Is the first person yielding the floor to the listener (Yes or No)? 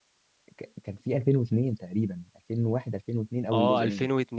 Yes